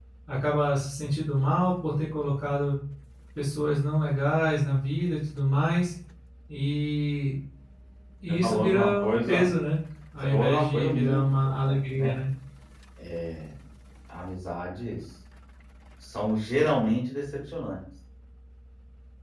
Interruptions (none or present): present